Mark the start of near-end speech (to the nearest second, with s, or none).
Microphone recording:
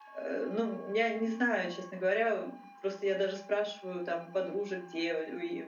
none